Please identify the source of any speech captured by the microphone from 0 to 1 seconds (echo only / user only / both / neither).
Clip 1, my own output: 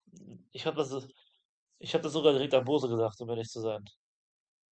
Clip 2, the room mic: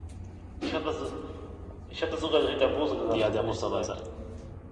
echo only